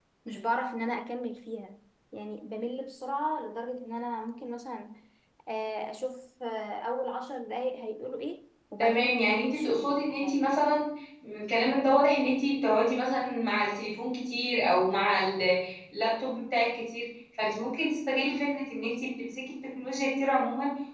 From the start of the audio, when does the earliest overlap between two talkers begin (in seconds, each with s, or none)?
8.8 s